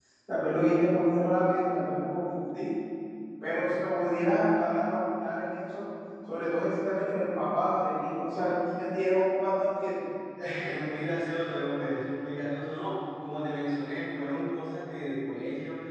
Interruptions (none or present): none